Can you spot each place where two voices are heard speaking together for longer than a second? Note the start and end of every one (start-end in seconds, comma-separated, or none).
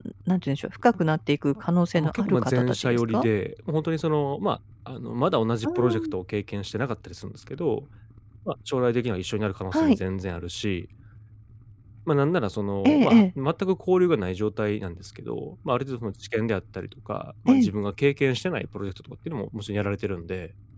1.9-3.2